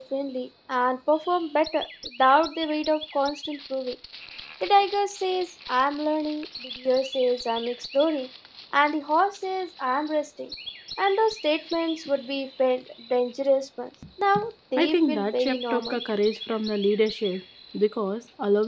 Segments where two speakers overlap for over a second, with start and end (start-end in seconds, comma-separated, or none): 14.8-16.0